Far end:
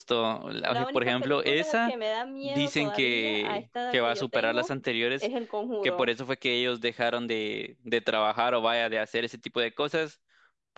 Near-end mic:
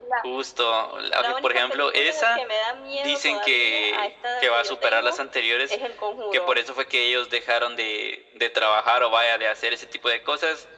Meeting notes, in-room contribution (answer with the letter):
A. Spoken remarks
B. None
B